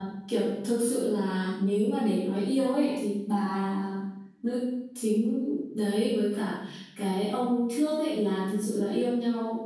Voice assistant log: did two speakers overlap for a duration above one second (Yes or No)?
No